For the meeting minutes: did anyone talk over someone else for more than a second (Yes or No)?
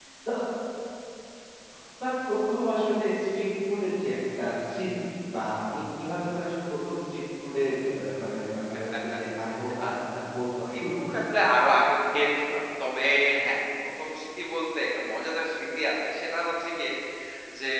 No